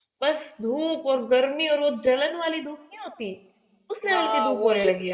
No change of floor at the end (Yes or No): No